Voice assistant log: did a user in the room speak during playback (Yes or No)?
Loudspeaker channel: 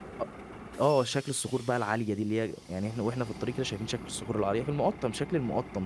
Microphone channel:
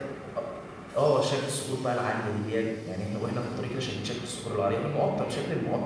No